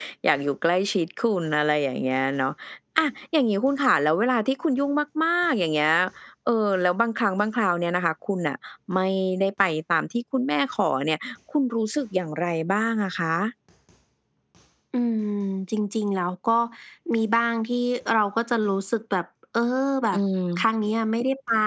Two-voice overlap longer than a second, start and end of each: none

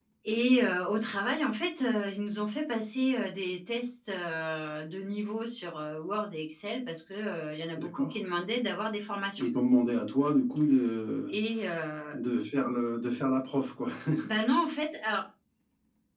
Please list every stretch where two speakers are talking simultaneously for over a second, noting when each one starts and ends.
none

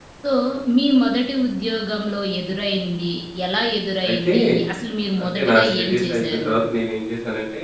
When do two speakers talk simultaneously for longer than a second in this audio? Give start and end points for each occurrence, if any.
5.2-6.5

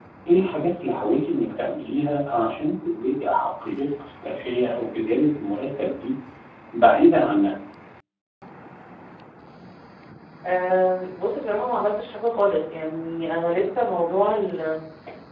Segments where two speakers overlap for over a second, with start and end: none

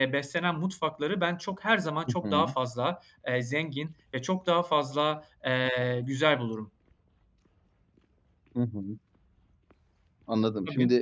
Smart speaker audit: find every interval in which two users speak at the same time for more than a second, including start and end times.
none

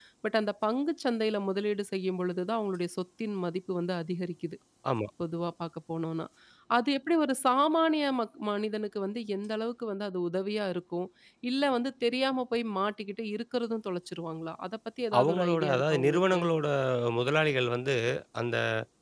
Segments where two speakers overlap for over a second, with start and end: 15.2-16.4

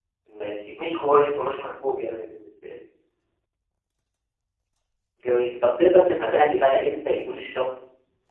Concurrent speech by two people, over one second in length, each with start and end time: none

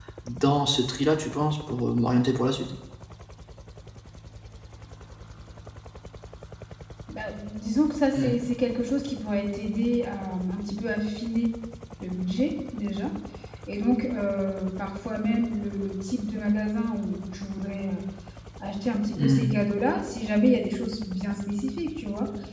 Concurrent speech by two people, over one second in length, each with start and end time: none

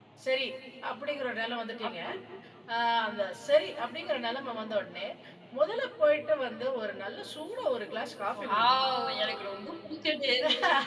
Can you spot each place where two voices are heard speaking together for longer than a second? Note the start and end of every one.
none

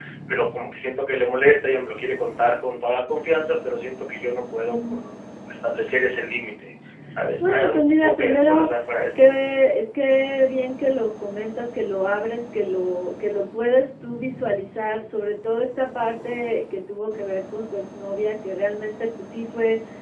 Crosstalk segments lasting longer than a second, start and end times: 7.4-8.7

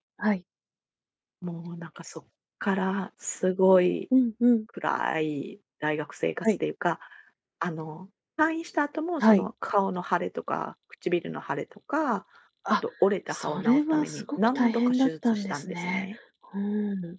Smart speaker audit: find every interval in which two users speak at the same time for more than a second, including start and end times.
13.3-16.1

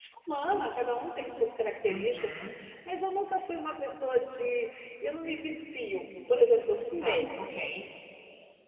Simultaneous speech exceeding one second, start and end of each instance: none

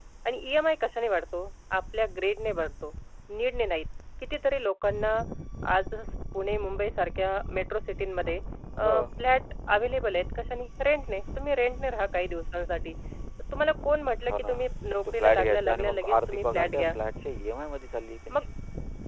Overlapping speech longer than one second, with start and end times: 15.2-16.9

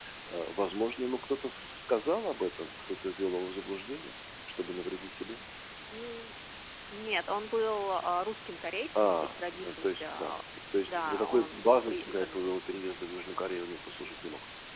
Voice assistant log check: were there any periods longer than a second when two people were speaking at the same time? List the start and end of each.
8.9-10.3, 10.9-12.5

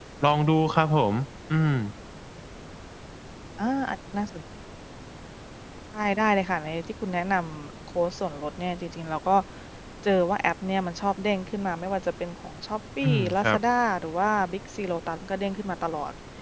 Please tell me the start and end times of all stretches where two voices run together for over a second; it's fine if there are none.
none

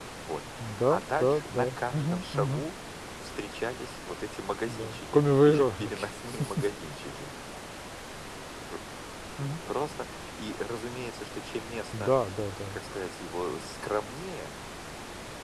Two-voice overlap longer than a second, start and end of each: 0.9-2.6, 4.7-6.1

